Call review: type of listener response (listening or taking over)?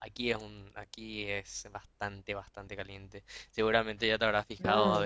listening